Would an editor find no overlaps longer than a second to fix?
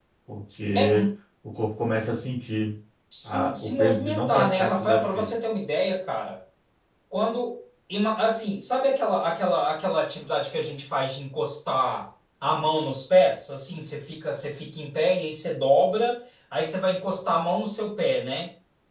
No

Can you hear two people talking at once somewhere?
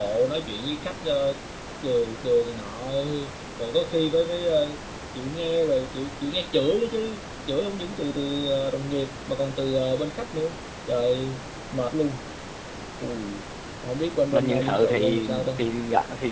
Yes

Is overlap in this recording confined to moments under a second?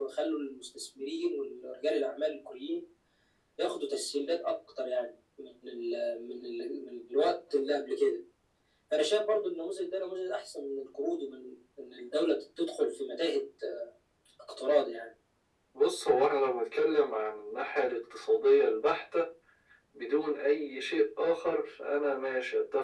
Yes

